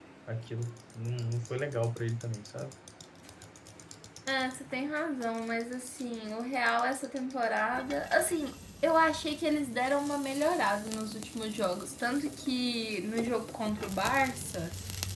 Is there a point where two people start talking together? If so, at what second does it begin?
none

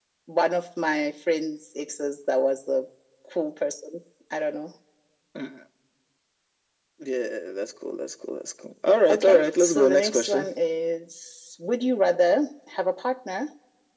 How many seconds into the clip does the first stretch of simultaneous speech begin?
9.1 s

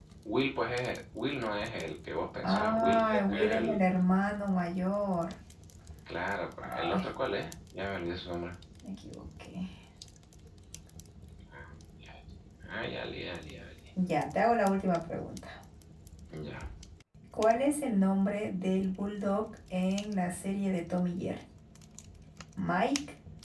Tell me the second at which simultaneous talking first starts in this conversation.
2.4 s

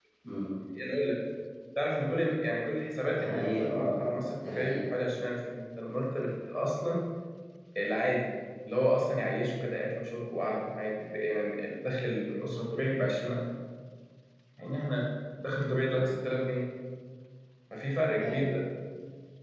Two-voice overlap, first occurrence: 3.1 s

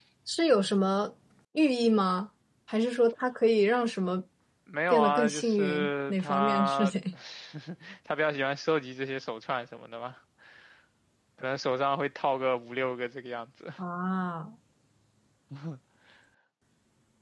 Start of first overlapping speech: 4.9 s

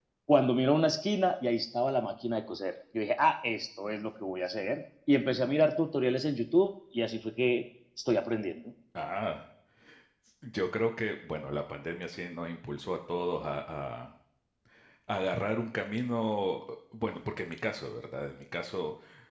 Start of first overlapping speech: none

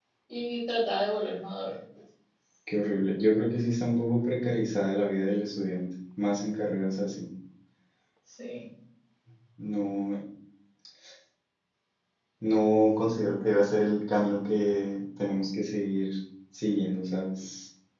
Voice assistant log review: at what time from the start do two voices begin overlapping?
none

